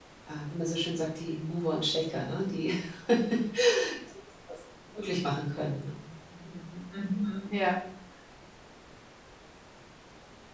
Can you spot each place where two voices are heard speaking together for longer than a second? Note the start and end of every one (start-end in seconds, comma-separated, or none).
none